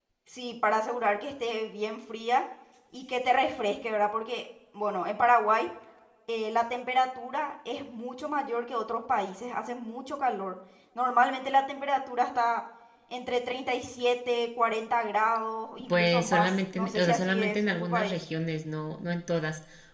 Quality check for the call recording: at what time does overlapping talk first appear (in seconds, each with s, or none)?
15.8 s